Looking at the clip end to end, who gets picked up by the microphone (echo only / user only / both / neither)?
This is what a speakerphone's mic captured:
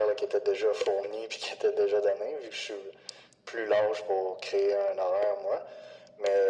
echo only